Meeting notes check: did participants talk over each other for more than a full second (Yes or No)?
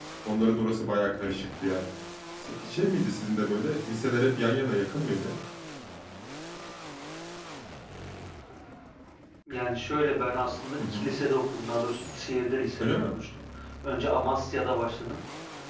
No